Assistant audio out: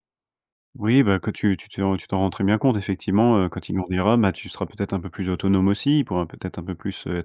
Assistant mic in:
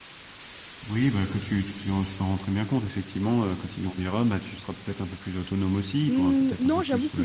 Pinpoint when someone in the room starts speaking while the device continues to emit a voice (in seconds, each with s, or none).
6.1 s